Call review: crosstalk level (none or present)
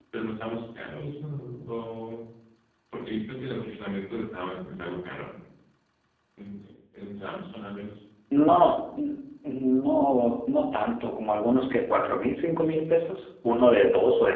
none